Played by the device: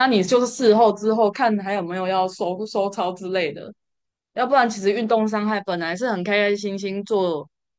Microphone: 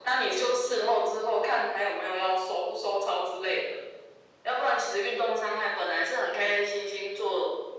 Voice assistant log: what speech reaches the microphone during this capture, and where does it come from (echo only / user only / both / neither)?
echo only